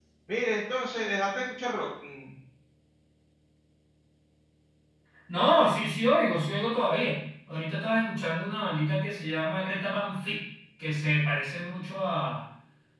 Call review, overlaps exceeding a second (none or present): none